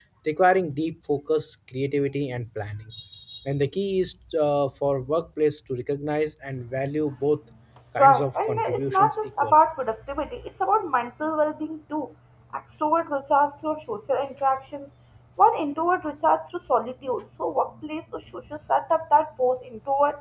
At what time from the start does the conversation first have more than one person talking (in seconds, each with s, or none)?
8.0 s